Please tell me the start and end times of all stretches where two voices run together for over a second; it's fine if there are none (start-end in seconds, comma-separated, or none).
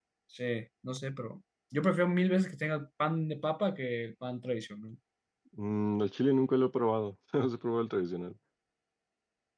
none